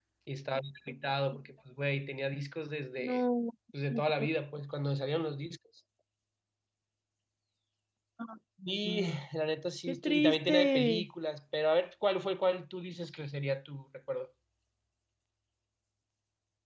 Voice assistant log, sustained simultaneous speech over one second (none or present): present